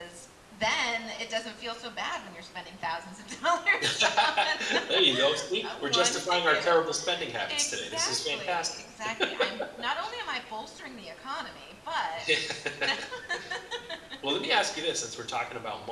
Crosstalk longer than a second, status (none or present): present